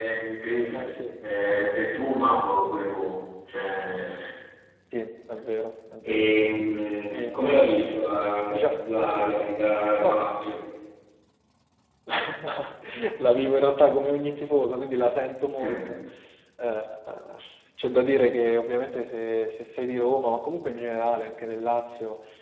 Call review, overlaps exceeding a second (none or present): none